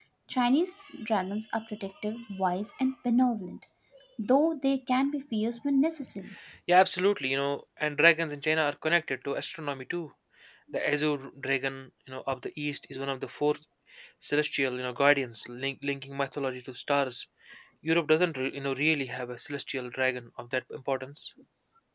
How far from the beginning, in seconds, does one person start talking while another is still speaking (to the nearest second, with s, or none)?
none